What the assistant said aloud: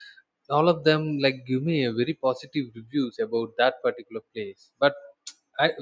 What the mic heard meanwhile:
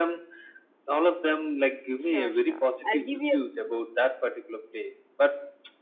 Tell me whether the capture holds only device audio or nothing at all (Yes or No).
No